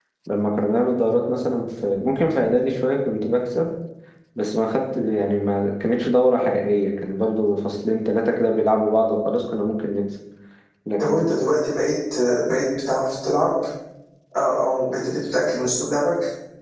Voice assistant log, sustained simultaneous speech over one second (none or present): none